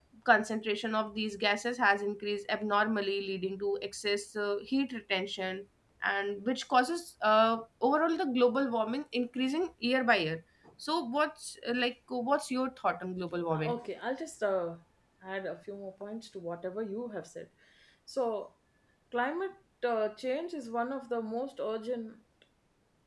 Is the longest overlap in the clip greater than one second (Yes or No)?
No